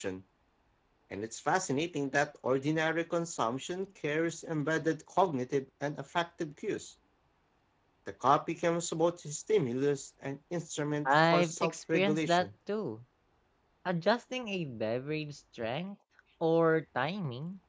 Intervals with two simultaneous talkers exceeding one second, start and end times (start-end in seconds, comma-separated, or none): 11.1-12.5